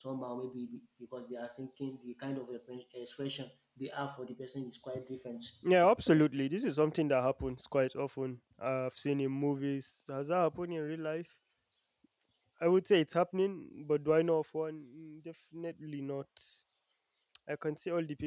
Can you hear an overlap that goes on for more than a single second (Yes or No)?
No